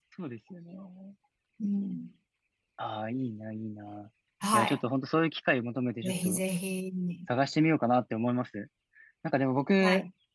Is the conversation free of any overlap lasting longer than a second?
Yes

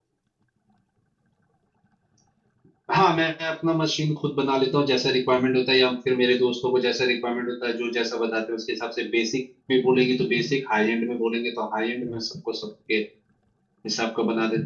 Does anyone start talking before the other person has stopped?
No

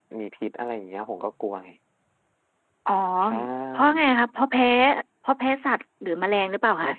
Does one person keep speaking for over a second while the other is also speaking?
No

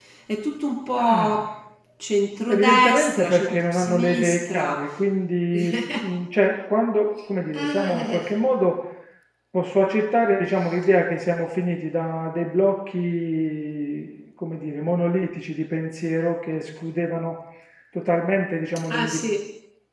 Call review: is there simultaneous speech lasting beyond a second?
Yes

